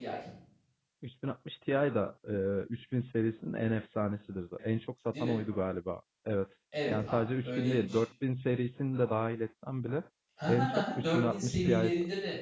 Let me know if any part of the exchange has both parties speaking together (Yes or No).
Yes